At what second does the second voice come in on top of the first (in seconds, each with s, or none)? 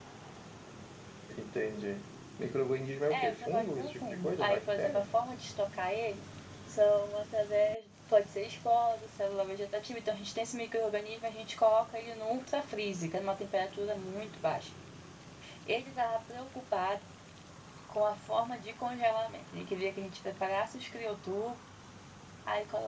3.1 s